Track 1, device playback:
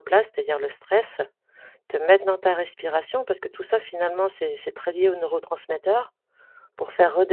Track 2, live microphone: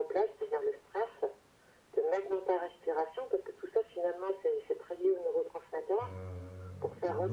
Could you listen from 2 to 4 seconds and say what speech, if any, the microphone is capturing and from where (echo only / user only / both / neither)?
echo only